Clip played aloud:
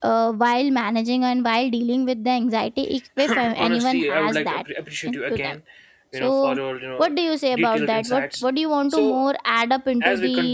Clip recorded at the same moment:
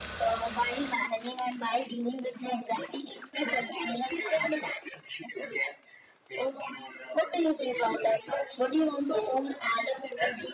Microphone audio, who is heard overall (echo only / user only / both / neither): echo only